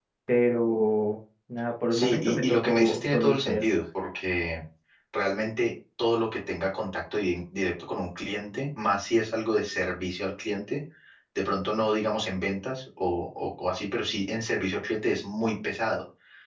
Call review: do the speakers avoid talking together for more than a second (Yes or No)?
No